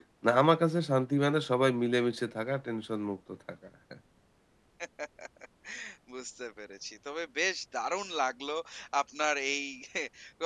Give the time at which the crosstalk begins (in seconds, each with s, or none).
none